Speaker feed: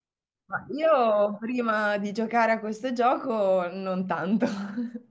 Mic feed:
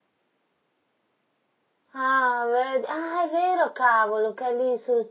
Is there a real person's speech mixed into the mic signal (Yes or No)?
Yes